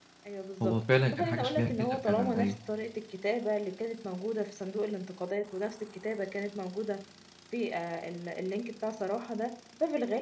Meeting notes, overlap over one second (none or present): present